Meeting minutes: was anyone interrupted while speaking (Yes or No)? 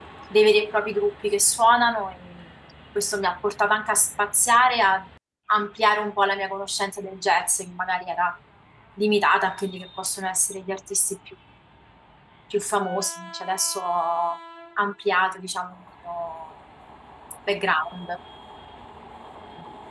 No